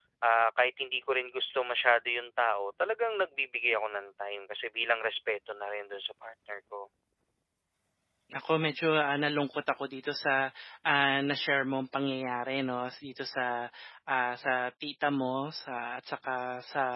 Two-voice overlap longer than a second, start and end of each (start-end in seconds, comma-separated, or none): none